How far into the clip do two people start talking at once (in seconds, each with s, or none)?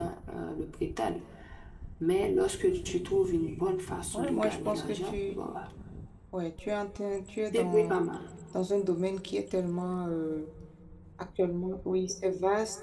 4.1 s